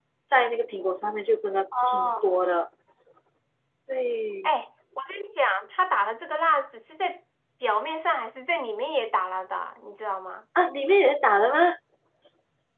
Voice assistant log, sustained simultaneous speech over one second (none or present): none